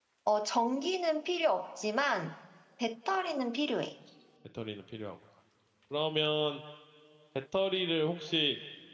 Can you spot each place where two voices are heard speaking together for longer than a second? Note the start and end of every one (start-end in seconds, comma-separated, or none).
none